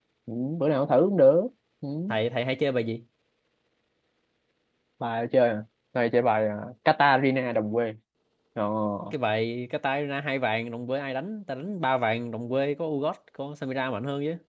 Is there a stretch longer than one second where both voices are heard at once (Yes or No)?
No